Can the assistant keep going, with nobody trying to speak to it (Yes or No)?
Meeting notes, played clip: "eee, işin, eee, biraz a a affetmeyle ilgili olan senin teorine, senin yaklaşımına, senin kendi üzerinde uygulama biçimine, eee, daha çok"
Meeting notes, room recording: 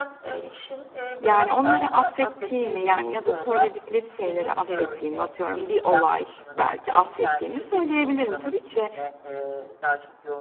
No